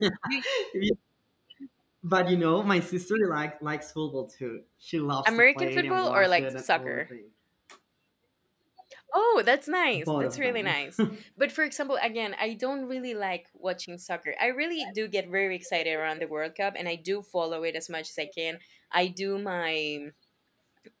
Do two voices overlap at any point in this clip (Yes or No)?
Yes